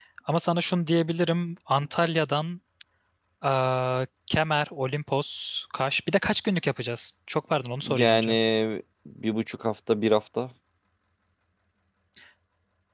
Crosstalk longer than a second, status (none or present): none